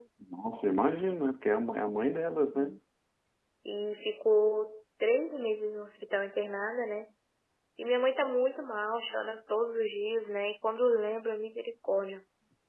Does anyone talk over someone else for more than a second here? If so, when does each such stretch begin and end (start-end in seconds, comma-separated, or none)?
none